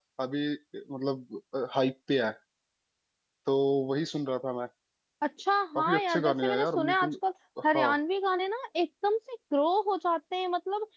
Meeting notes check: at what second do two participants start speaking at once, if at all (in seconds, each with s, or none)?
5.8 s